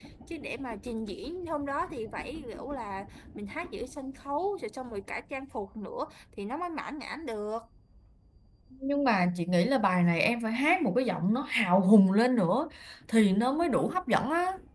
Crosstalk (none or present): none